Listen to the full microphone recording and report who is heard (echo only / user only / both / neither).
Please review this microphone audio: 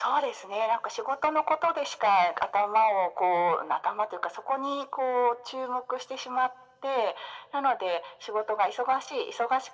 echo only